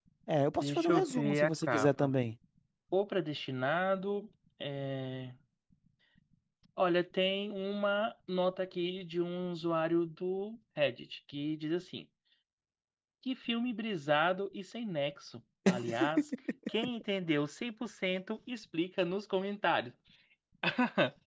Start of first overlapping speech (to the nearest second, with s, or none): 1 s